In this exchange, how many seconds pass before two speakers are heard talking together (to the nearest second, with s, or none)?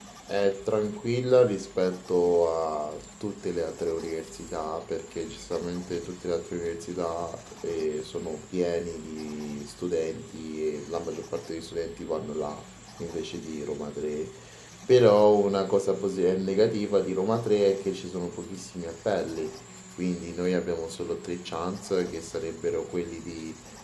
none